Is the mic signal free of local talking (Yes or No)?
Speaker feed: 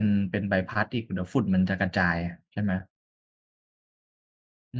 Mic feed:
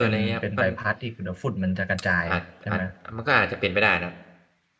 No